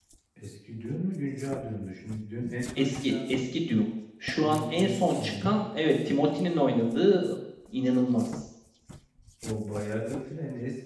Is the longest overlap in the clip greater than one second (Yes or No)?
Yes